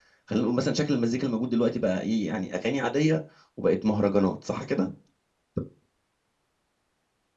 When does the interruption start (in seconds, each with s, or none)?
none